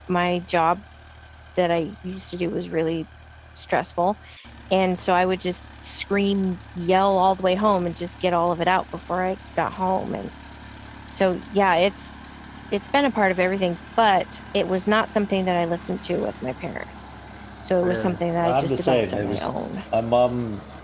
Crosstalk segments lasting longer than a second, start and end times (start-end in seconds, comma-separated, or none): 17.8-19.5